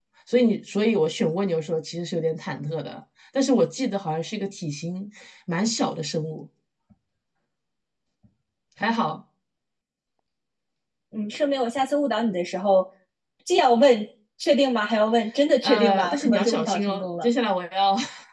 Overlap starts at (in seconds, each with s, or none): 15.6 s